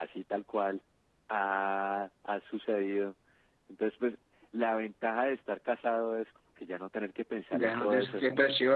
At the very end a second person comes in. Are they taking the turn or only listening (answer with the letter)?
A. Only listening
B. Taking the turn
B